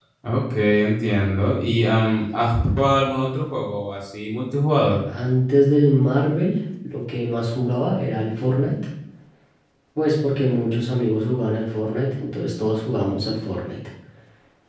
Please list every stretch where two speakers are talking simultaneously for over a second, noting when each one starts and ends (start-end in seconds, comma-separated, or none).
none